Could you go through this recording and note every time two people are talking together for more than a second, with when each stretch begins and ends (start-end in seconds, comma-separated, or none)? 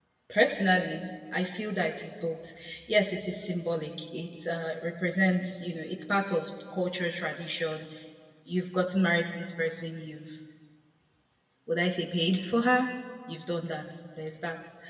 none